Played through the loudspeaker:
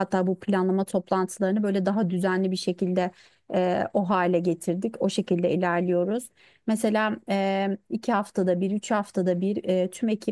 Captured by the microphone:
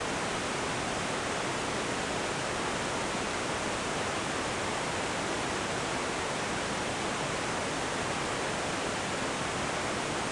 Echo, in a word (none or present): none